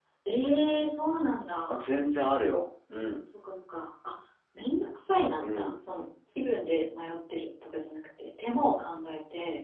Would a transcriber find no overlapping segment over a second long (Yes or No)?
Yes